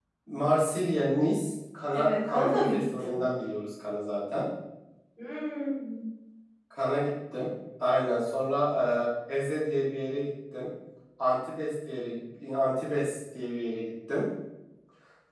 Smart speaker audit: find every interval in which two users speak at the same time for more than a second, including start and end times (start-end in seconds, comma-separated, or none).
1.9-3.2